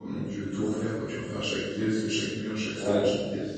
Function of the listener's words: taking over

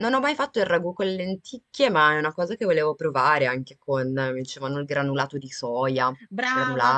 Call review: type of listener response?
taking over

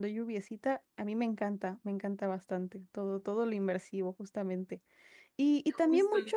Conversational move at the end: listening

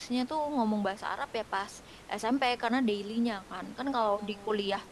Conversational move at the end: listening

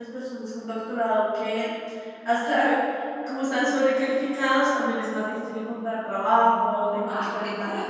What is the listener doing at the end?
taking over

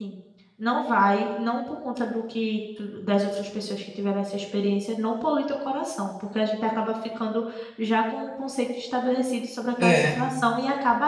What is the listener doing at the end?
listening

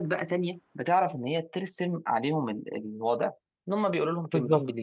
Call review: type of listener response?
taking over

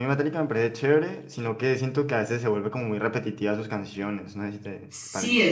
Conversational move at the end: taking over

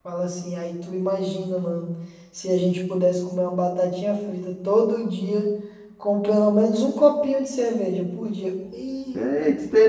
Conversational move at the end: taking over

